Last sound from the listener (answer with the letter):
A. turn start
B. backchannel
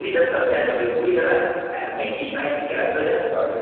B